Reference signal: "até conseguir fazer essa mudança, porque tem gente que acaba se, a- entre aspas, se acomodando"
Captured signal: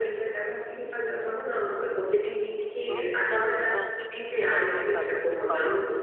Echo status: present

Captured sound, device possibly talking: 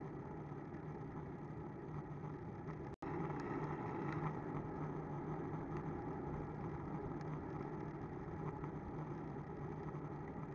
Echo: none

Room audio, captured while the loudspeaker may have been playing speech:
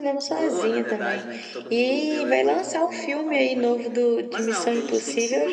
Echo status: present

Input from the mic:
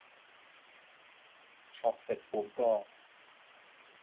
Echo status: none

